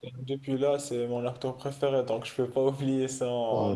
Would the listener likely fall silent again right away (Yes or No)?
No